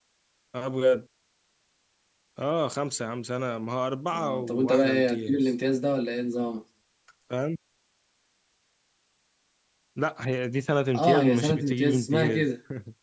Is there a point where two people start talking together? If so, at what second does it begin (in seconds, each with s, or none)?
4.1 s